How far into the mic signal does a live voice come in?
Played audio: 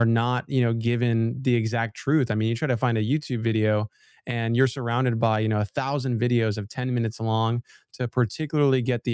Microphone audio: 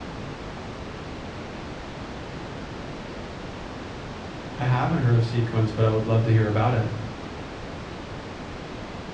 5 s

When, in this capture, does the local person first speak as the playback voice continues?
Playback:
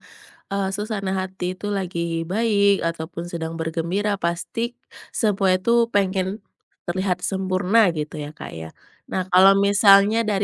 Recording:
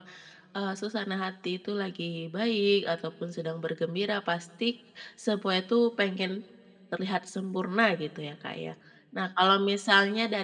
none

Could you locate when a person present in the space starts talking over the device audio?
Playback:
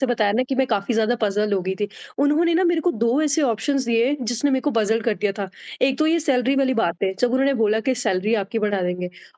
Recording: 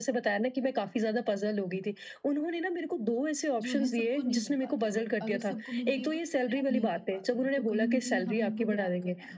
4 s

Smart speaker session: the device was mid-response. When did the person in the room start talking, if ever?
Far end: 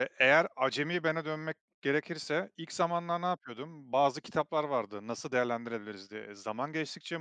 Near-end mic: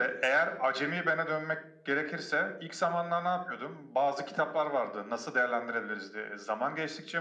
none

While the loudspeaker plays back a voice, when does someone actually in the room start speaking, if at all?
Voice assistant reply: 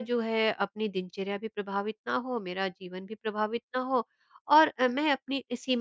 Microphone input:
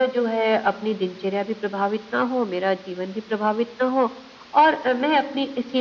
none

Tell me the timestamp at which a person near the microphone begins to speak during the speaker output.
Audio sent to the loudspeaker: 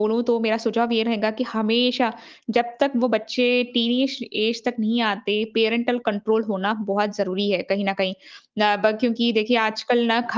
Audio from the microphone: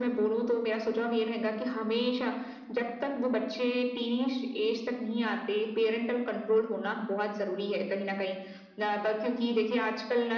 none

